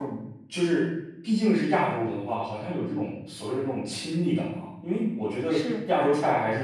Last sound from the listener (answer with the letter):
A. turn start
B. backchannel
B